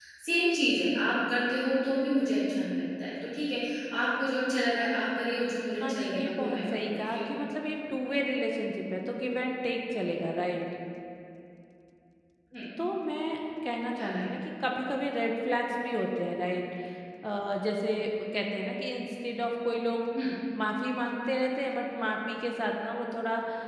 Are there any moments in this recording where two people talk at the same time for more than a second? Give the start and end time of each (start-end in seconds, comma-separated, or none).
5.8-7.0